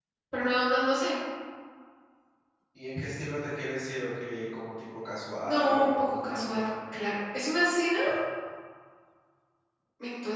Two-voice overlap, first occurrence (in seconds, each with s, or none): 5.4 s